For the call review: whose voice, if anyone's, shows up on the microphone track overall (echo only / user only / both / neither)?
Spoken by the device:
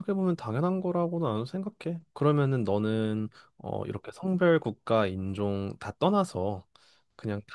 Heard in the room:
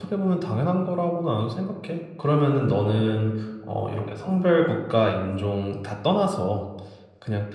echo only